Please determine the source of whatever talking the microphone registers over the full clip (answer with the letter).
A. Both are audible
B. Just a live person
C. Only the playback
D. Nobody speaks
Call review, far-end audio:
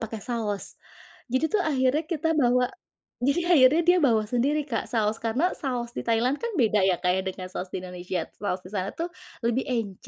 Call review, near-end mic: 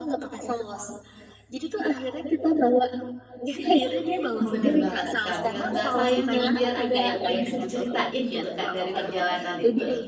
A